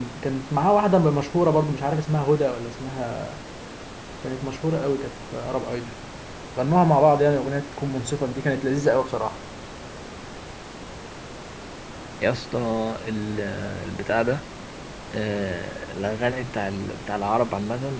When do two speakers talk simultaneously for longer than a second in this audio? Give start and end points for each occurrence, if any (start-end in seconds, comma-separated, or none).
none